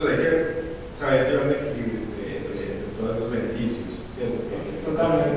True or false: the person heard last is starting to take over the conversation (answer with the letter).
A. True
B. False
A